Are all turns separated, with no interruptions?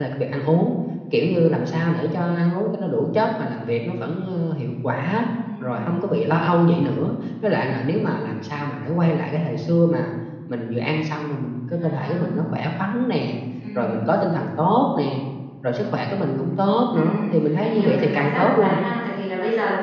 No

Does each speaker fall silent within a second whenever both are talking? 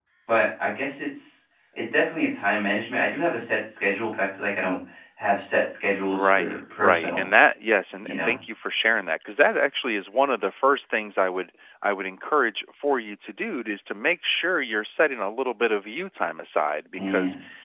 No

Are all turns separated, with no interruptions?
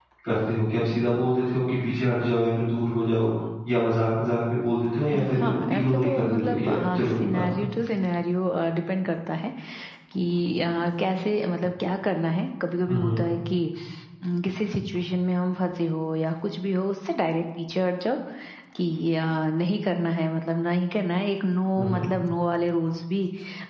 No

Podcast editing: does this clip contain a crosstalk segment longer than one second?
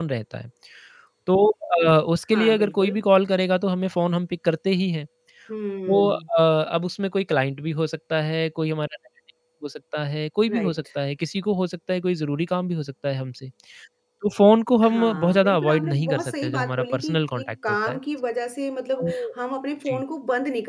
Yes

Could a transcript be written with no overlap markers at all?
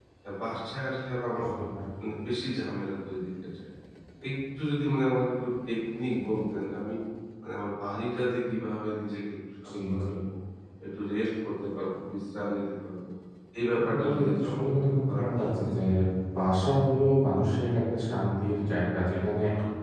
No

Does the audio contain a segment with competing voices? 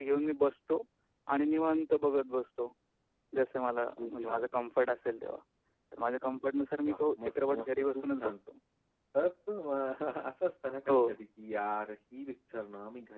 Yes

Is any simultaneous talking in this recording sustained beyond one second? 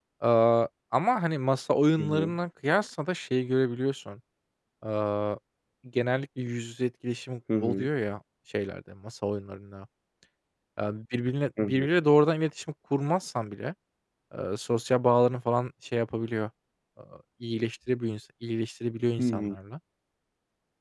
No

